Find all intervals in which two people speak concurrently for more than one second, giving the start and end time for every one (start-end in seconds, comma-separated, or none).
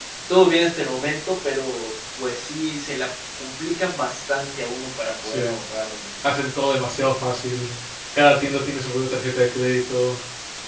none